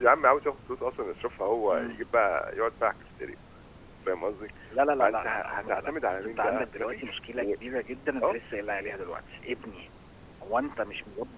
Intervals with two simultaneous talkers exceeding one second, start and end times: 5.0-7.5

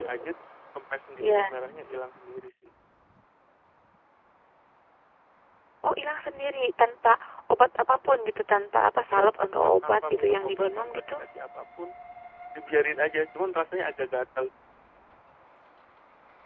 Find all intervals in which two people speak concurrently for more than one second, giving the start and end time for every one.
9.1-11.2

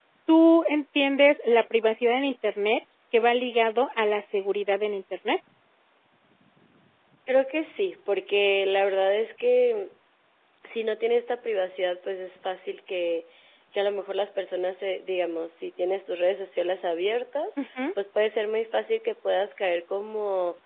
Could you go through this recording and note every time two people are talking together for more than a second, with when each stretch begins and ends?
none

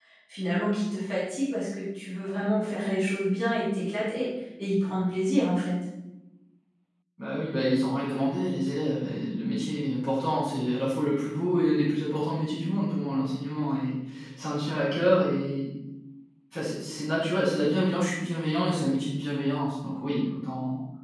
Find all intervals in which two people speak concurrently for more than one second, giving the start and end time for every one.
none

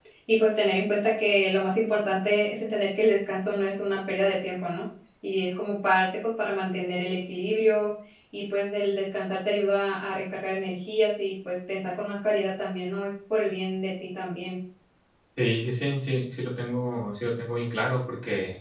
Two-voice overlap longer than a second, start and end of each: none

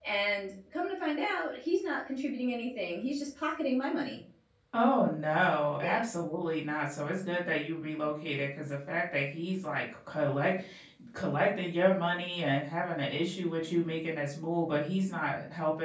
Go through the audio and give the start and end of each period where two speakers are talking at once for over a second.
none

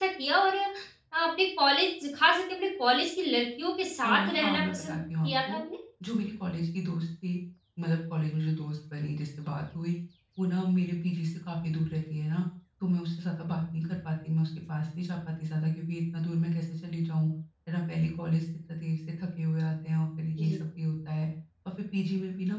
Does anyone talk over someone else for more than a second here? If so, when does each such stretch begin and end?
4.0-5.6

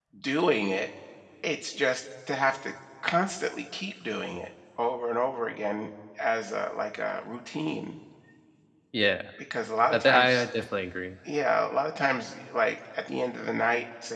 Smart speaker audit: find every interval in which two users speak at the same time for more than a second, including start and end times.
none

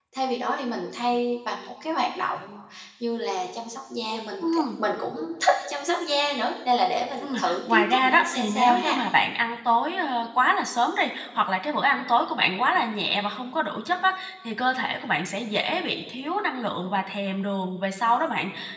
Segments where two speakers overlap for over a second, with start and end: 7.2-9.0

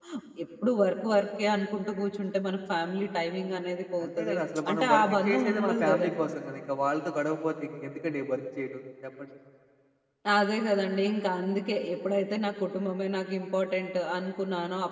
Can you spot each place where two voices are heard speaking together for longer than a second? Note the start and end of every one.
4.0-6.3

